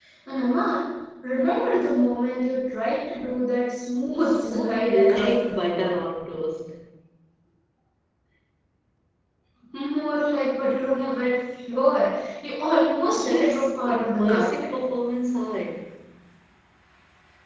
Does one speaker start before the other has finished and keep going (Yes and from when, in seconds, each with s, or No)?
Yes, from 4.2 s